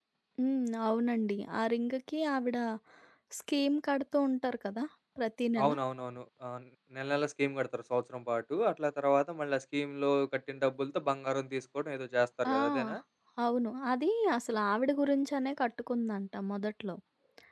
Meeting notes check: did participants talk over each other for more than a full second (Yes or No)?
No